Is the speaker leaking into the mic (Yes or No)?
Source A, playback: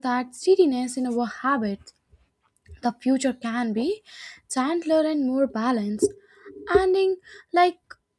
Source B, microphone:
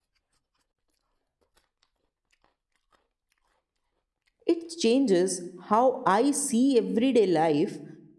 No